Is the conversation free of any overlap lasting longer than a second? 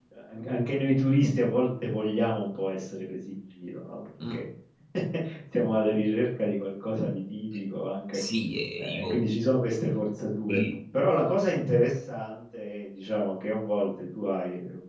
Yes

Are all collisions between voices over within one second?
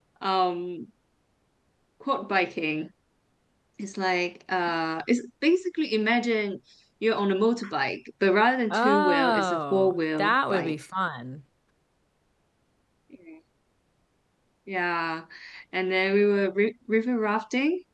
No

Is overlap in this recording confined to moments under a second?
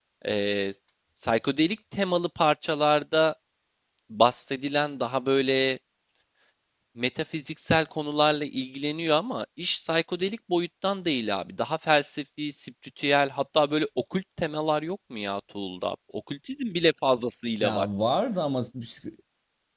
Yes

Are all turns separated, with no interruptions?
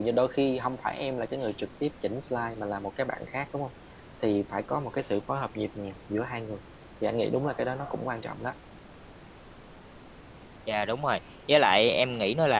Yes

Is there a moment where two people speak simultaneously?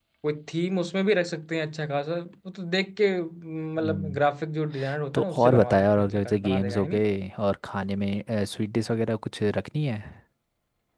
Yes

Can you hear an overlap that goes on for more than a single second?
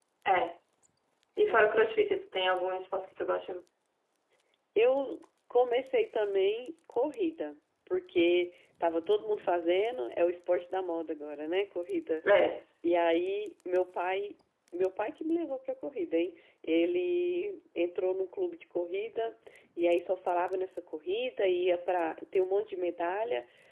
No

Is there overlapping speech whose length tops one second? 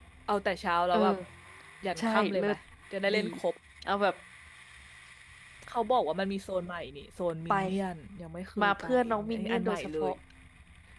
Yes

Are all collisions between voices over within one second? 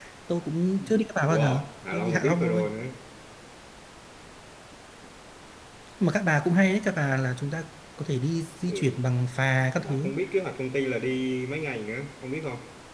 No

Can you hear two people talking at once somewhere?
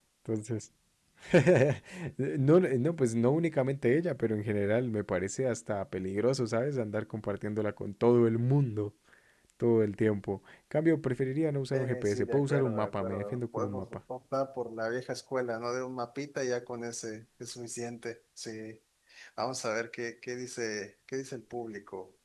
Yes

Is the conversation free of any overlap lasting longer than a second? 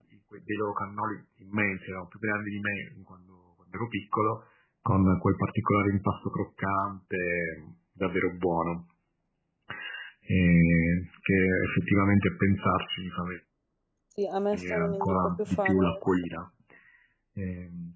No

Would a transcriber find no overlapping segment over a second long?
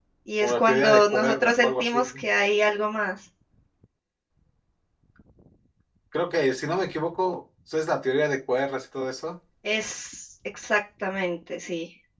No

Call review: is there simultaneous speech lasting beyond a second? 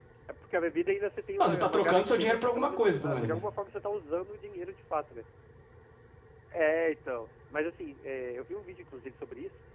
Yes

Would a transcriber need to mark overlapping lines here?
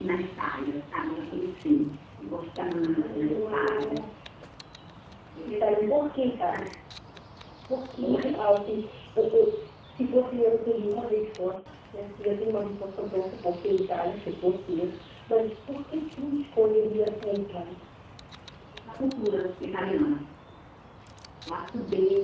Yes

